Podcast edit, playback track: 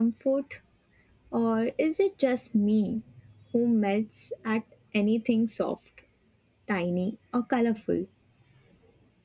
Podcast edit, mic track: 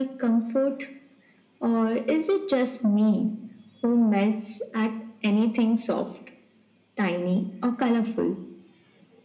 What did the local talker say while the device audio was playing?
none

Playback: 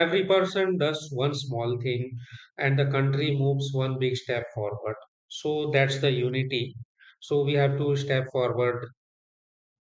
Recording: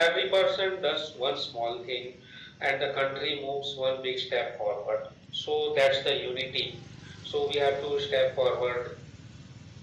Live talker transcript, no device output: none

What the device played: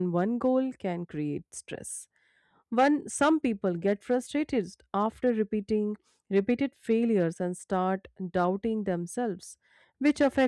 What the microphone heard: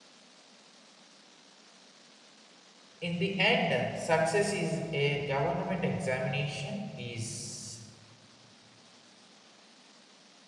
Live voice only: In the end, success is a government examination is

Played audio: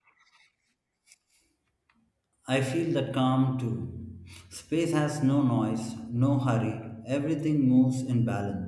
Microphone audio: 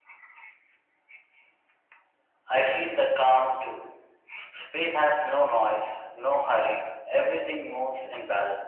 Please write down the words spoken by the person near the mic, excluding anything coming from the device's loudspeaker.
none

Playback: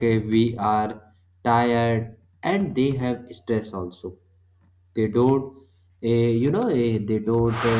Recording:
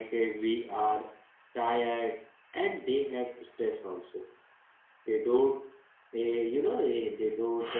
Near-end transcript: none

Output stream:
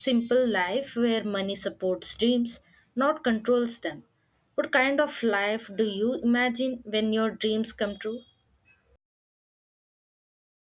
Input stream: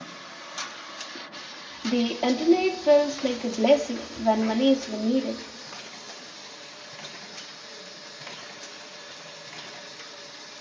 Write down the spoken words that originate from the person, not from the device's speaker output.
The internet feels like a blessing when money is limited,

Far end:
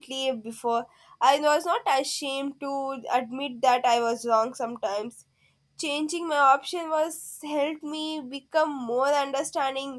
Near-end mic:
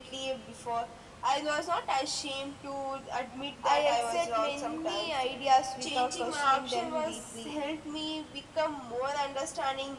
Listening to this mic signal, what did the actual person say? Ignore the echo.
I accept many ideas without questioning them deeply.

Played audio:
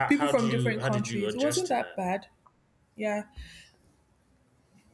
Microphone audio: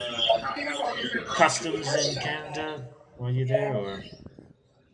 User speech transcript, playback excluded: customs in Canada while you're there, or

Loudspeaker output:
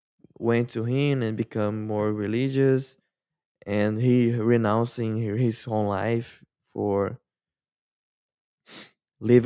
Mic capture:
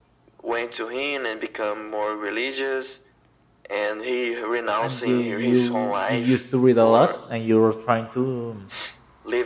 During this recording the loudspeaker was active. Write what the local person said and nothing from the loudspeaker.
and uh, you you used to read a lot and you're trying to um,

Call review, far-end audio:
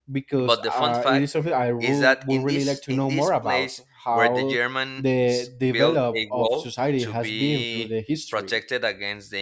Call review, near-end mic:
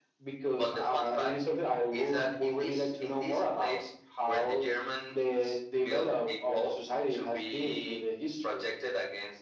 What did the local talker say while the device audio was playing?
none

